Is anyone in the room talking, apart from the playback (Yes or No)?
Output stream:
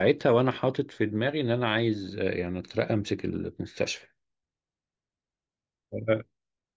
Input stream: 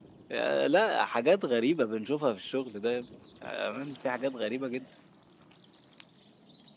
Yes